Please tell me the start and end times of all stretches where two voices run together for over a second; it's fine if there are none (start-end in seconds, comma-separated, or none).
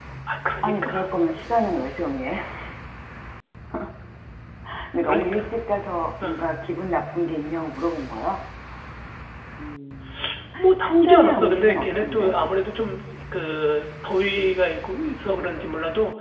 10.8-12.3